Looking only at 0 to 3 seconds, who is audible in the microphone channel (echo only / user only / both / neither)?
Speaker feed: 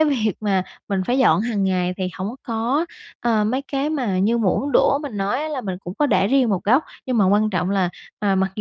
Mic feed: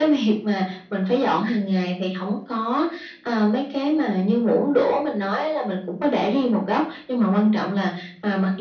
echo only